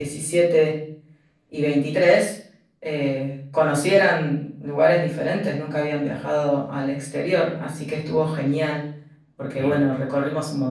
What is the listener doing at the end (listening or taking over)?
listening